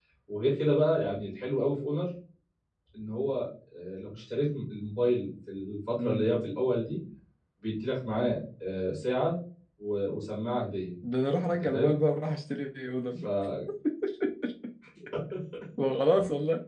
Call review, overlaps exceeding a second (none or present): none